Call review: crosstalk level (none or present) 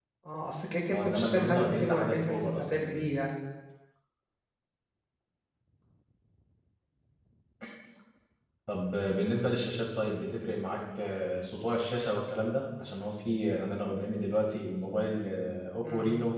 present